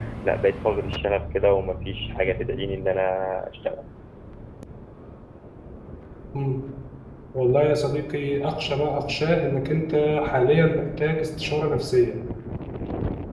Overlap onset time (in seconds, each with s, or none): none